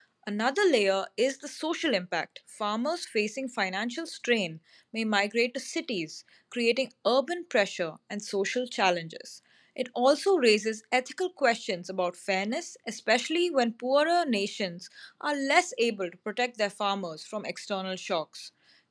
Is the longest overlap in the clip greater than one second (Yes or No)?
No